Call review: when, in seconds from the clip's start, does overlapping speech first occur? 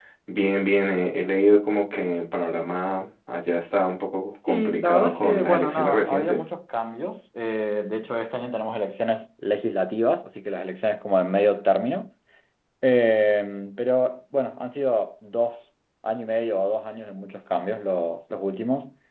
4.5 s

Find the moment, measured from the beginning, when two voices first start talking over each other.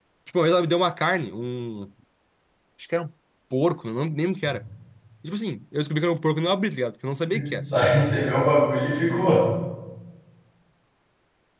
none

